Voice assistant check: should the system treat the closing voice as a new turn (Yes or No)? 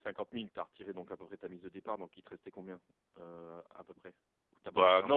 Yes